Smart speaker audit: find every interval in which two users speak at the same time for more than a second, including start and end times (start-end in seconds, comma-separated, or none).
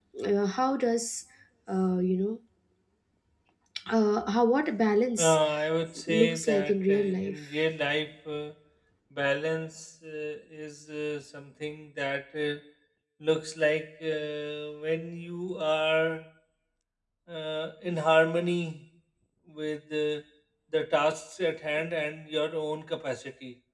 6.1-7.6